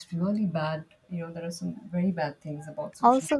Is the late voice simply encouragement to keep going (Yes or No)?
No